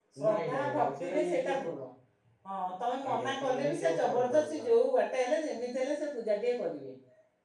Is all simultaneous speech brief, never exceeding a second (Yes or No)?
No